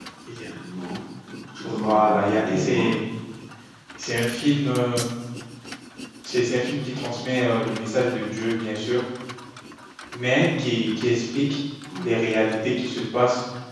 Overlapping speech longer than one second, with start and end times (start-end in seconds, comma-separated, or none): 1.6-2.9